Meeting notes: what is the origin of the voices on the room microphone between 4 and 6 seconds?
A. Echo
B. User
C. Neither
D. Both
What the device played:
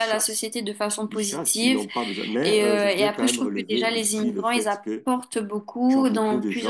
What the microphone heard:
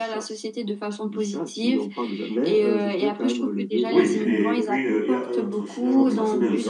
D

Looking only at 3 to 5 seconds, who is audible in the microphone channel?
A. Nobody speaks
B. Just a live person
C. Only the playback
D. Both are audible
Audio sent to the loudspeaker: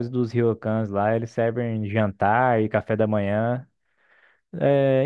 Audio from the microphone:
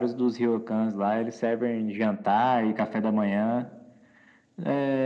C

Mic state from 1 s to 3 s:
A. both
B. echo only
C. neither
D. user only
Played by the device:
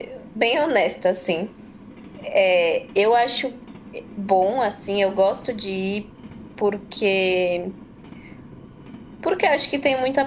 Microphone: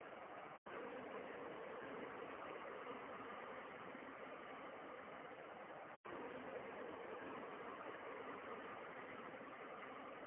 C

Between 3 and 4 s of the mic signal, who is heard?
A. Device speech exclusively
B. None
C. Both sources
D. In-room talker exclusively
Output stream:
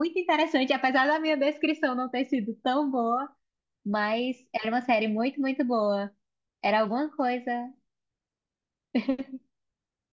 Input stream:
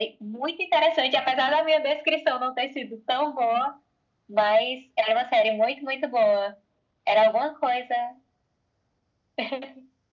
A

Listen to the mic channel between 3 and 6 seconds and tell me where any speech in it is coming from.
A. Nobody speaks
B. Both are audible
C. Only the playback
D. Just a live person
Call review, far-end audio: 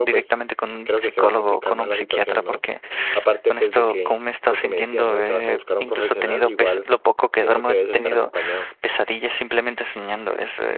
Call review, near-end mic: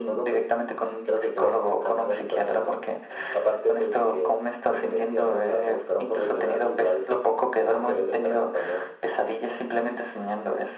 C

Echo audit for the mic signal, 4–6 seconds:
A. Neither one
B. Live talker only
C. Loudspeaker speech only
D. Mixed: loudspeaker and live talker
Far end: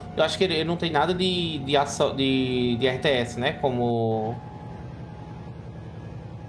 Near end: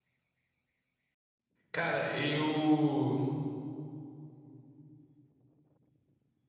A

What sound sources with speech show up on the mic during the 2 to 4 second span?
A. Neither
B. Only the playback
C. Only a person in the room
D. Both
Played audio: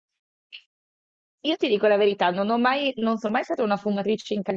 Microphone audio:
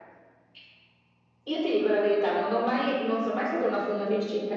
B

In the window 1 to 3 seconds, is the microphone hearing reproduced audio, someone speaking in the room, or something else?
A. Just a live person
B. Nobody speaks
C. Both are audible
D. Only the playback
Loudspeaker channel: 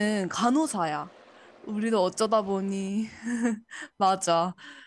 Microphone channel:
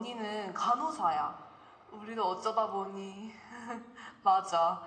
D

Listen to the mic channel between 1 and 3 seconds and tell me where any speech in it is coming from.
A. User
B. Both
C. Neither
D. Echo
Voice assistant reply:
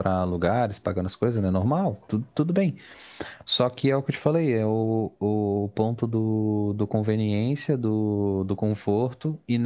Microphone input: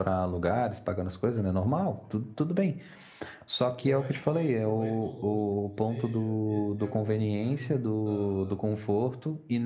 D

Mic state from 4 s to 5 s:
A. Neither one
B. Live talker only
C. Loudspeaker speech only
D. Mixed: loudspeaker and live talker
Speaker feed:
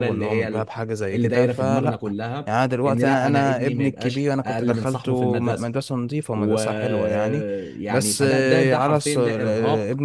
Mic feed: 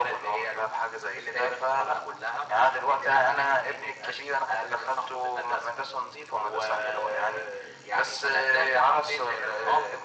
C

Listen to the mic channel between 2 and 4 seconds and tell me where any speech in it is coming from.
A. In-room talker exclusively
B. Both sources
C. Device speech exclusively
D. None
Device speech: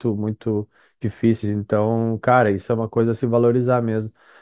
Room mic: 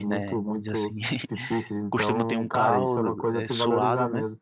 B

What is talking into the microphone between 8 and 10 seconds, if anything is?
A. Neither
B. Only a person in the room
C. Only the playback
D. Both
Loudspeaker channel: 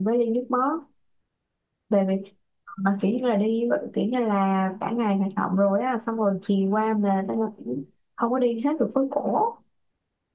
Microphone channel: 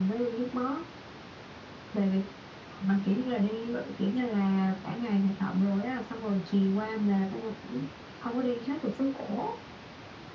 C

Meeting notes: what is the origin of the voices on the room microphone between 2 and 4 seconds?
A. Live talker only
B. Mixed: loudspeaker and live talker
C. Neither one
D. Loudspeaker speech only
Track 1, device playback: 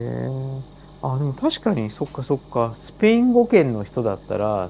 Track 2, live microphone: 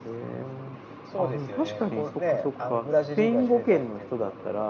B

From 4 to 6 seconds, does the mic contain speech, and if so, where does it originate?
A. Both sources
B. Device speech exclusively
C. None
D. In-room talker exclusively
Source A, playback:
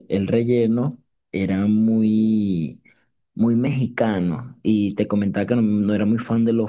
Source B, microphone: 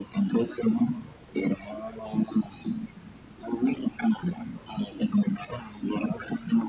B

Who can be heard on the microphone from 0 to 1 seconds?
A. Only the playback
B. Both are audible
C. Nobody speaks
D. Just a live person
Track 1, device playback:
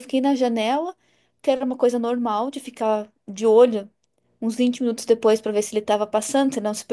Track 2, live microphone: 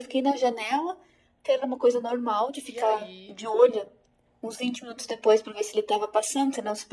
A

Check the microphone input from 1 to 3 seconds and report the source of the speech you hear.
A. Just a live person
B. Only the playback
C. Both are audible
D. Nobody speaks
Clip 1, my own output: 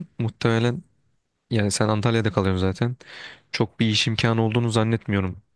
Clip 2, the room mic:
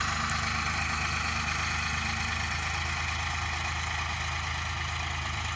D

